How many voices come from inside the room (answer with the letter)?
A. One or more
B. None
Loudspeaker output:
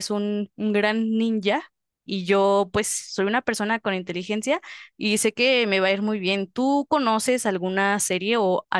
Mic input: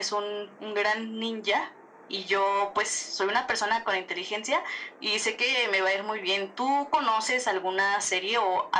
B